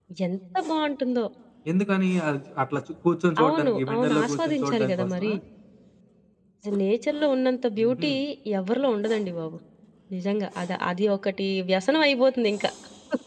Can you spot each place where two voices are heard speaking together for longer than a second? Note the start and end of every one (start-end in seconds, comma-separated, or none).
3.4-5.3